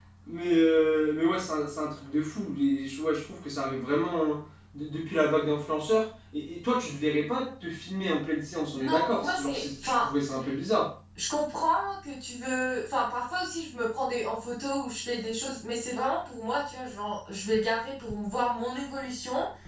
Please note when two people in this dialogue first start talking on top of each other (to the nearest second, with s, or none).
9 s